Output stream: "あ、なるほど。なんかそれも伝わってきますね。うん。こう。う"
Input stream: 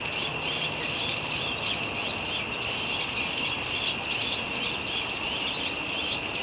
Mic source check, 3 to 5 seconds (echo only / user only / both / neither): neither